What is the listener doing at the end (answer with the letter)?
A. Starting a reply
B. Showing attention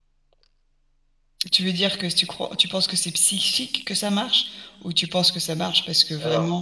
B